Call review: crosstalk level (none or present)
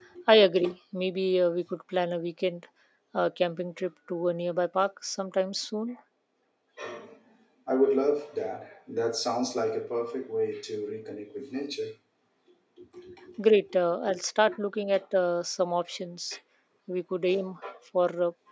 none